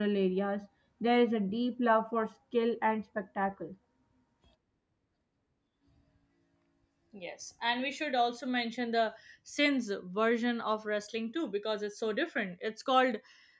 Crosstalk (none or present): none